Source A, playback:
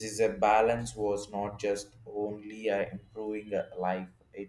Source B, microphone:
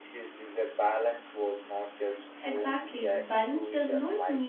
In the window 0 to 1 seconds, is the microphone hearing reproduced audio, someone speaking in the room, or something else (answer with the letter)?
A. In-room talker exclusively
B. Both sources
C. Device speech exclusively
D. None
C